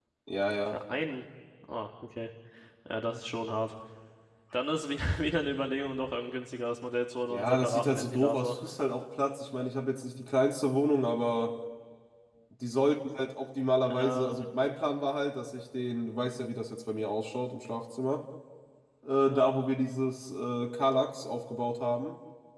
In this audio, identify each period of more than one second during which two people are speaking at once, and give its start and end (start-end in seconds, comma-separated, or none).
7.3-8.6